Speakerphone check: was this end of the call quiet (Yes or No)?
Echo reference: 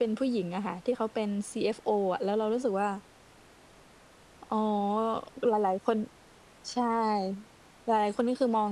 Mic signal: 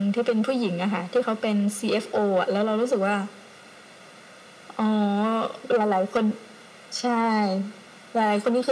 Yes